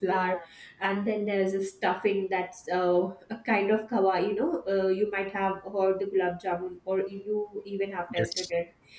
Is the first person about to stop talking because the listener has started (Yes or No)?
No